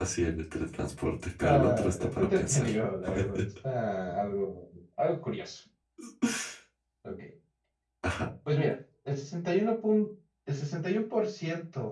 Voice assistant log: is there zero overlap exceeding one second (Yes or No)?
No